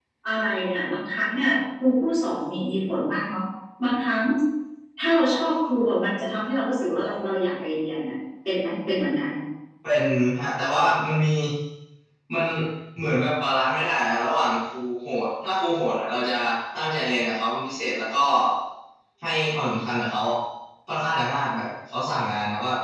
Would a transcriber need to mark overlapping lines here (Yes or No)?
No